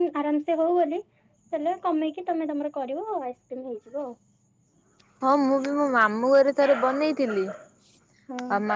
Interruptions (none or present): none